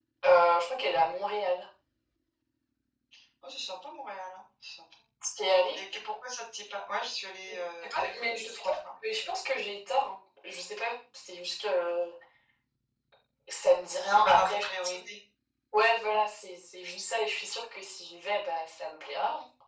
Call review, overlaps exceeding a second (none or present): present